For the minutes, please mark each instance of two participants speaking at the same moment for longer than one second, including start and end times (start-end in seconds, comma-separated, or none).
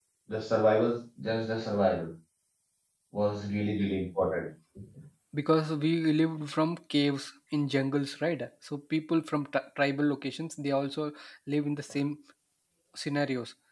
none